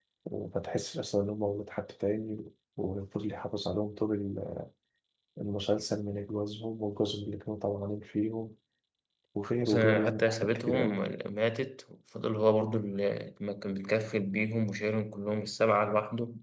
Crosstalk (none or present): present